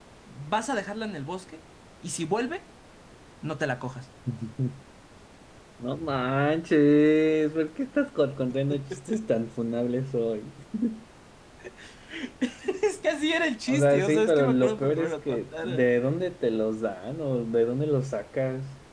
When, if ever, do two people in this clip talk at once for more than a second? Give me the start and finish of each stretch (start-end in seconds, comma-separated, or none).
13.7-15.8